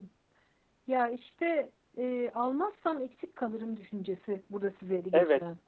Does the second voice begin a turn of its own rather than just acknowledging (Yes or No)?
Yes